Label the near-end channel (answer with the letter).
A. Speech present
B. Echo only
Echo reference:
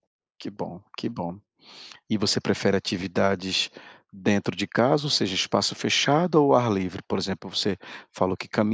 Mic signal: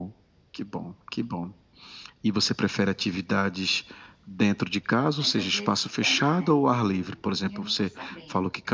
A